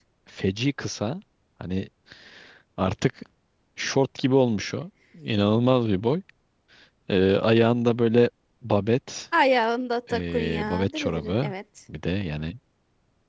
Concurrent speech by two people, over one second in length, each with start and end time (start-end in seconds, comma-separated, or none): 10.1-11.5